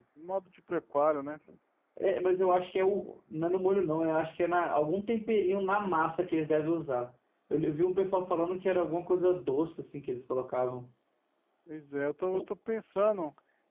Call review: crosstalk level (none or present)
none